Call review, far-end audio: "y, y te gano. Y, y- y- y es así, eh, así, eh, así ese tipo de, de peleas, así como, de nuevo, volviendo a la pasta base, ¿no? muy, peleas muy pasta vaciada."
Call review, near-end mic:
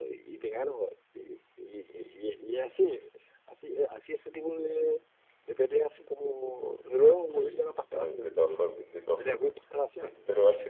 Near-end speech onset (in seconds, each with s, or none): 7.3 s